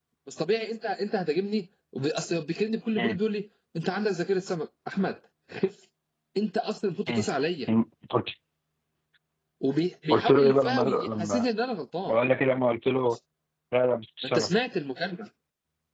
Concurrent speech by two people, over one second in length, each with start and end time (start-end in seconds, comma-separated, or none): 10.1-11.4